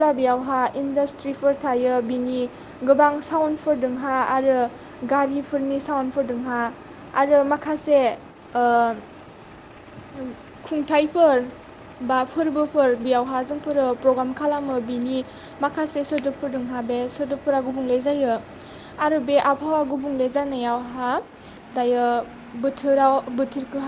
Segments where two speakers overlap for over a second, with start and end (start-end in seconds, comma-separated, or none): none